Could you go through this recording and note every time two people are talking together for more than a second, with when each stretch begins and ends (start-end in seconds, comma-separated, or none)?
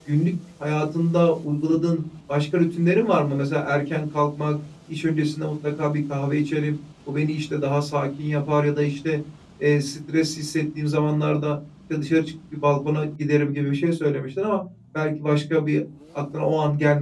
none